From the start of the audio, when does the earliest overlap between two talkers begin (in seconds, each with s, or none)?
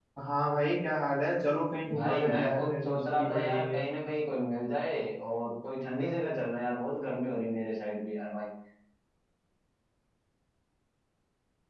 1.9 s